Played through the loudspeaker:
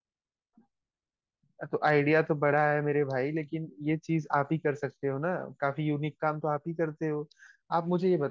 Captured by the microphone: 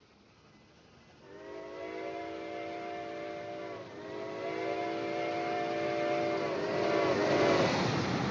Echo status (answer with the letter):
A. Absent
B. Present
A